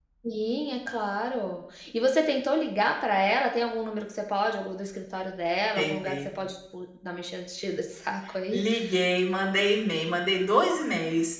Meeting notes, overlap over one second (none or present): none